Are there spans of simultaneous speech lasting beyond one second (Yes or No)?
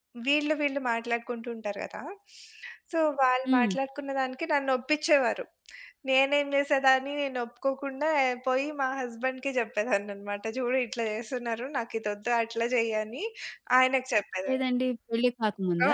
No